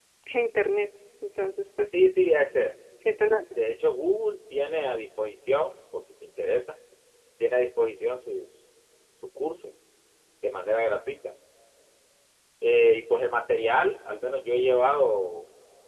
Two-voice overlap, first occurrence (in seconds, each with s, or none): none